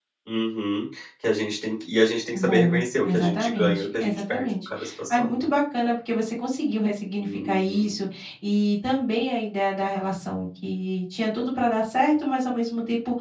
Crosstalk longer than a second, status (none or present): present